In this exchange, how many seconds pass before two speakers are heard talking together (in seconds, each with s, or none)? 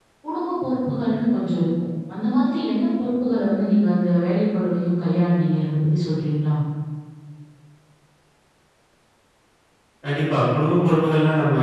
none